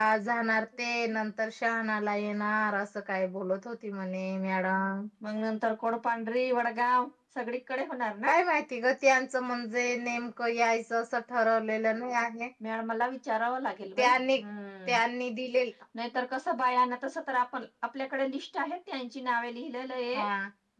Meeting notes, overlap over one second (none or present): none